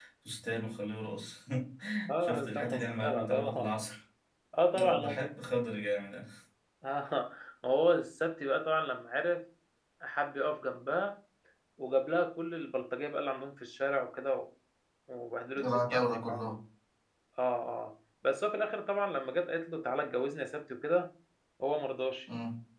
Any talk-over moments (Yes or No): Yes